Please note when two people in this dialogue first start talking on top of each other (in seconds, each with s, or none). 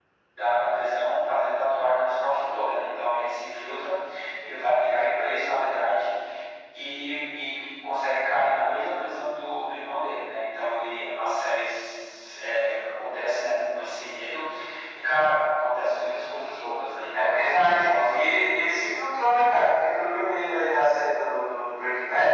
17.1 s